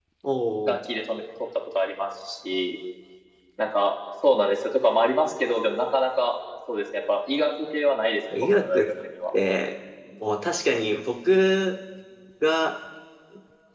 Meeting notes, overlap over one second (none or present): none